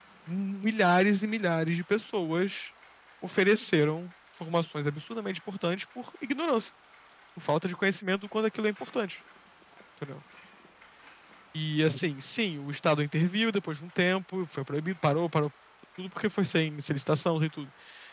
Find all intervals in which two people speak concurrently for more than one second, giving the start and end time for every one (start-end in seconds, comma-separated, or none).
none